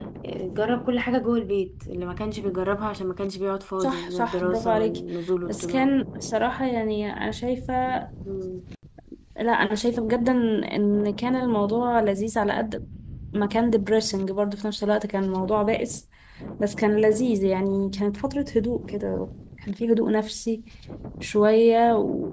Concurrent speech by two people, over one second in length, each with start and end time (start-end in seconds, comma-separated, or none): 3.8-5.0